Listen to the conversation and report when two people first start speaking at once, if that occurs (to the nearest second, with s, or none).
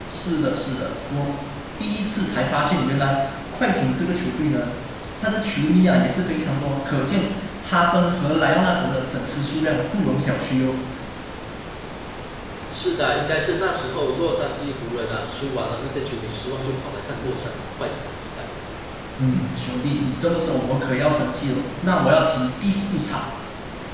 none